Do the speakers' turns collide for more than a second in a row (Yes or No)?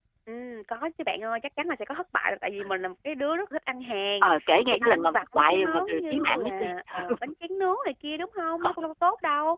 Yes